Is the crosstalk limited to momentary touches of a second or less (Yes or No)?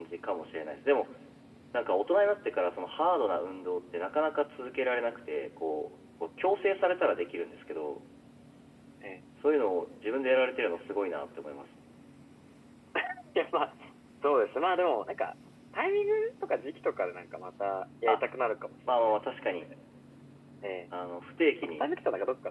Yes